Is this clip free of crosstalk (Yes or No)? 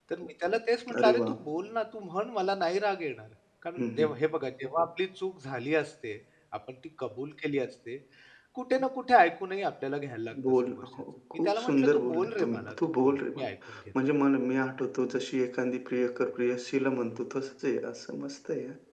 No